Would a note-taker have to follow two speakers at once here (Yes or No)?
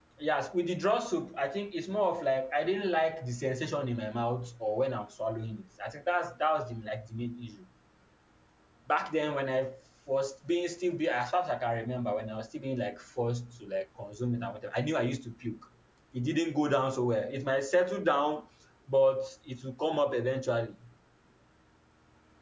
No